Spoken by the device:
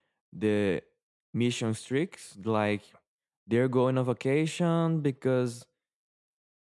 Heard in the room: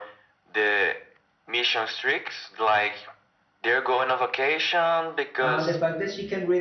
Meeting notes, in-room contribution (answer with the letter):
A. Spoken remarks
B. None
A